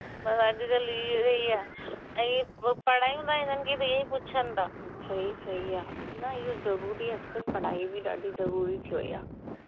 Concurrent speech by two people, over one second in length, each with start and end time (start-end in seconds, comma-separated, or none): none